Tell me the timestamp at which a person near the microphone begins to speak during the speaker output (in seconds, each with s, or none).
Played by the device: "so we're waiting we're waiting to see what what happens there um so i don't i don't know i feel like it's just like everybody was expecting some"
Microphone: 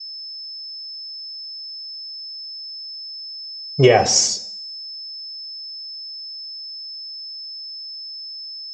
3.8 s